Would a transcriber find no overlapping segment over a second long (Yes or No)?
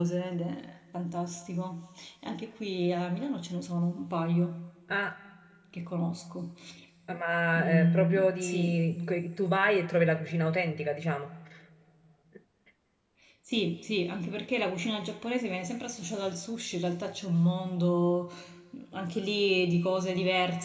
No